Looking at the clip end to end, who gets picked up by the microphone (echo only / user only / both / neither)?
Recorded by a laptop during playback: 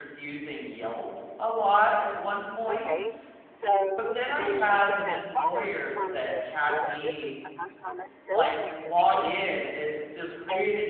both